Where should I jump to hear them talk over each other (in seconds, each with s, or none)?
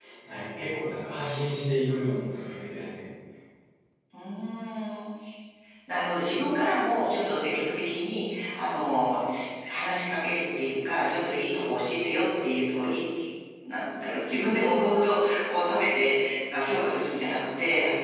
none